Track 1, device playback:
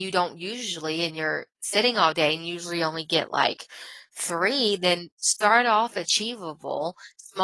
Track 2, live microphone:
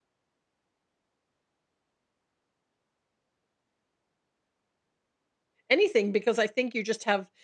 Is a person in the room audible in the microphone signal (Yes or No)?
Yes